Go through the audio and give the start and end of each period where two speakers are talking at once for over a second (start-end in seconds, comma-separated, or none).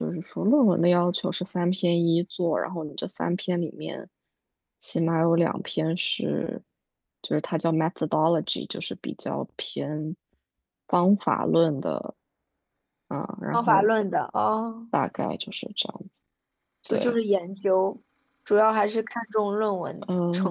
none